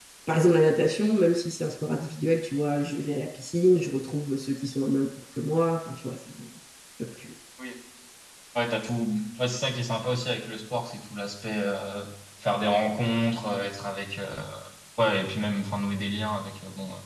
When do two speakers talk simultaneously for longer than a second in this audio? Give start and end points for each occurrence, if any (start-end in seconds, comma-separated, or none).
none